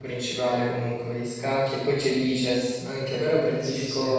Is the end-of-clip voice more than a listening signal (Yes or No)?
No